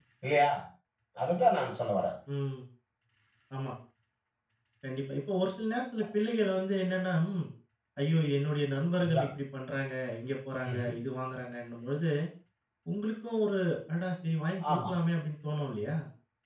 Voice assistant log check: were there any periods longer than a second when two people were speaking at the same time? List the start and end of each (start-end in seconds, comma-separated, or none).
none